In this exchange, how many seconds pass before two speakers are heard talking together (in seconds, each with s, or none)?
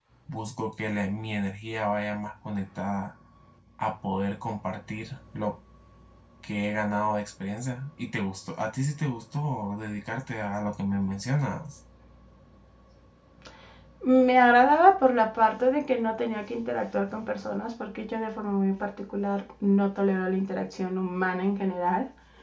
none